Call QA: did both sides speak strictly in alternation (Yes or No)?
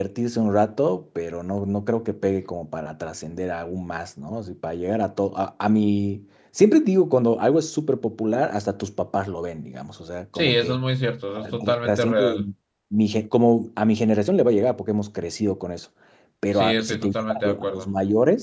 No